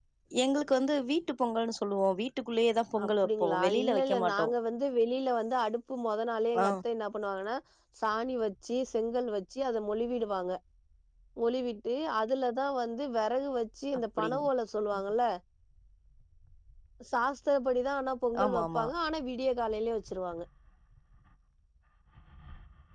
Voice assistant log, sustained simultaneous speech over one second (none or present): present